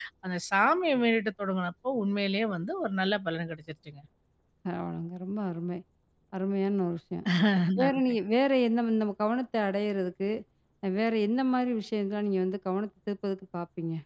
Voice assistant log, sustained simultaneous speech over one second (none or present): none